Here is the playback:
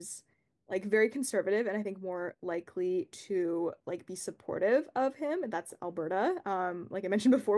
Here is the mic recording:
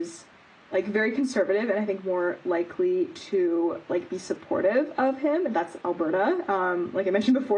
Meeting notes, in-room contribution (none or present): none